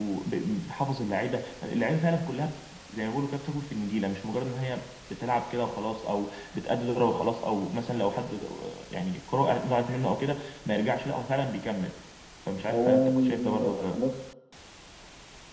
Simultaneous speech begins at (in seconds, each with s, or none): 12.7 s